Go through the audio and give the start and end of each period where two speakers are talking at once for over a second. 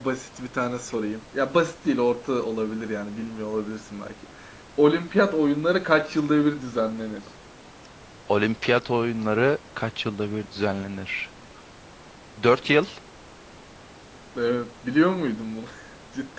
none

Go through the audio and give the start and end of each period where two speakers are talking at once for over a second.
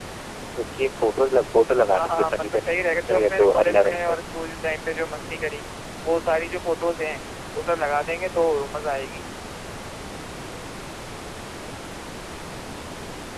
1.9-4.2

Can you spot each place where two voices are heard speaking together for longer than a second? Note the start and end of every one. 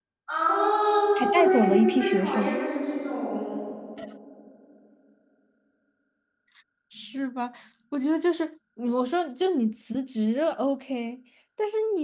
1.3-2.6

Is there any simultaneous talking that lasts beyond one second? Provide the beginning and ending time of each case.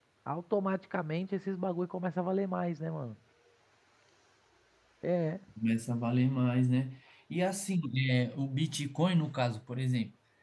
none

